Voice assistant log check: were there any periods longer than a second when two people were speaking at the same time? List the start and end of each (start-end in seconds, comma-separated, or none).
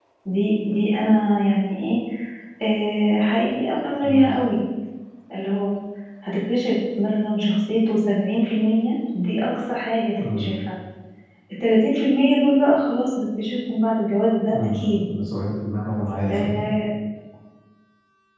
none